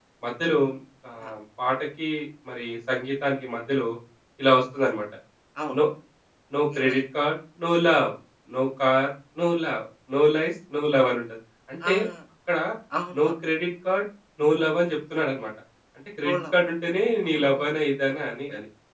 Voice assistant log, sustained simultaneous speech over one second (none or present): none